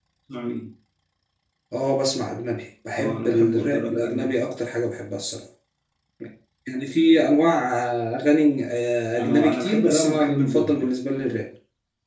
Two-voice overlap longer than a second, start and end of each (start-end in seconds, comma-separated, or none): 2.9-4.3, 9.2-10.9